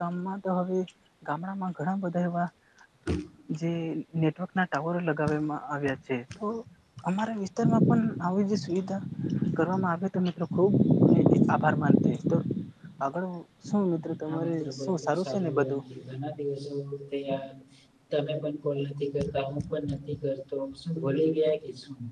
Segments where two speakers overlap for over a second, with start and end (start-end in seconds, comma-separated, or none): 14.3-15.8